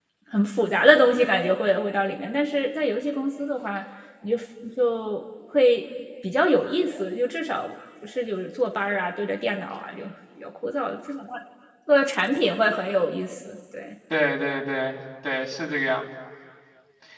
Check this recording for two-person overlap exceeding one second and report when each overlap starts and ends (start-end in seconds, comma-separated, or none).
none